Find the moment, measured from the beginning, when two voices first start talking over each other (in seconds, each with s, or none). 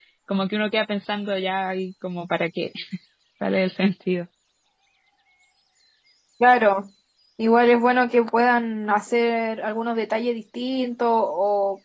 none